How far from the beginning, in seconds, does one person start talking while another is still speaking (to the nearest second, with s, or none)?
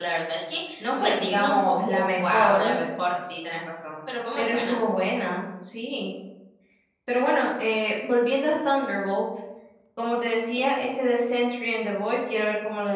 1 s